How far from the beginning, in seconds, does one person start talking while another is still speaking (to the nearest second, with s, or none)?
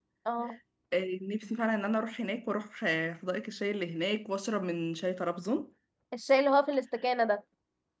none